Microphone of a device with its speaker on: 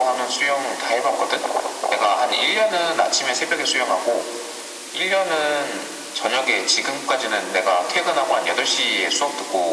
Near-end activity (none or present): none